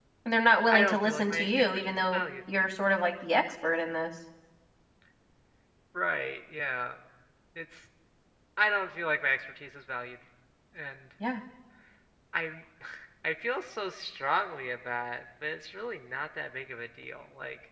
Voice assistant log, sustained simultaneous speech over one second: present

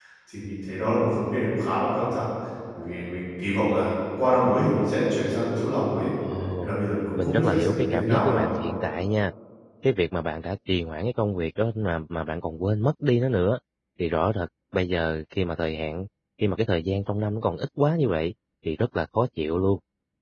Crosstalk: present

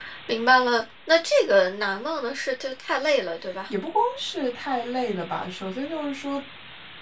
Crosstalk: none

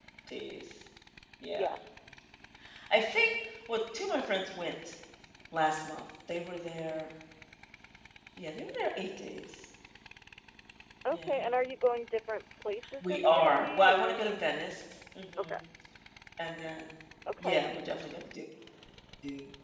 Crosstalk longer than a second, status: present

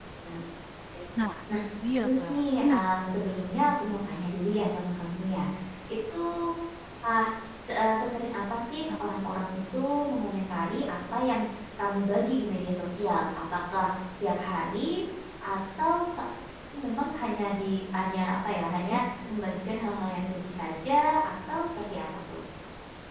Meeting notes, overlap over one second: present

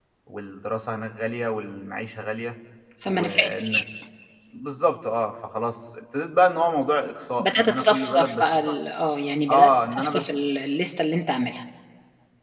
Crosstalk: present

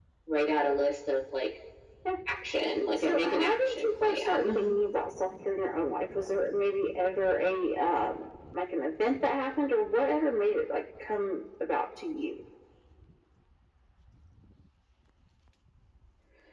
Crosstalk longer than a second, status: present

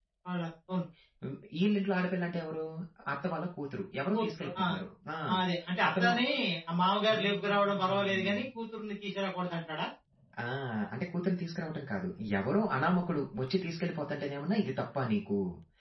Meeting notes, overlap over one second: present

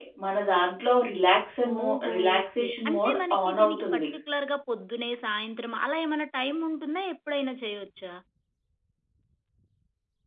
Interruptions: present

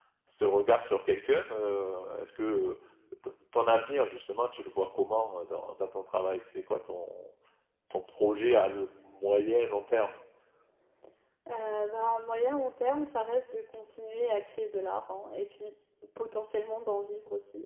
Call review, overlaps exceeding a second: none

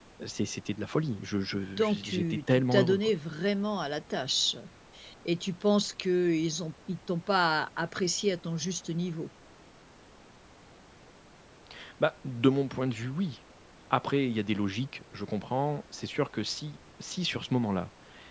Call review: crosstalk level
present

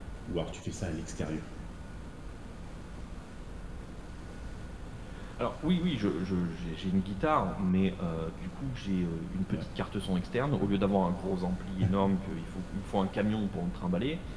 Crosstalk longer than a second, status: none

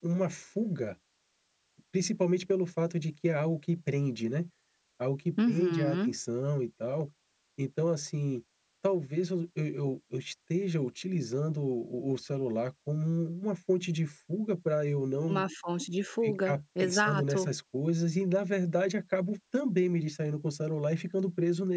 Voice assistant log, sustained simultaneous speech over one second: present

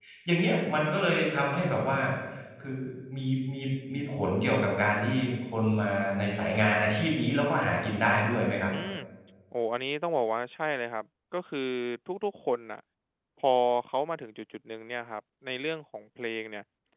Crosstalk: none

